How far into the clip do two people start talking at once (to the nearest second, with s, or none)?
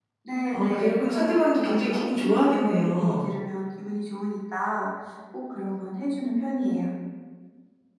1 s